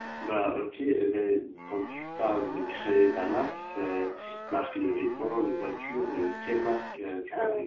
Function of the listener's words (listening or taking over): taking over